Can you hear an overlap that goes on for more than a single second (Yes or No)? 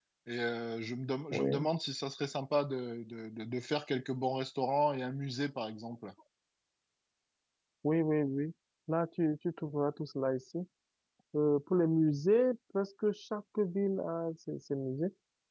No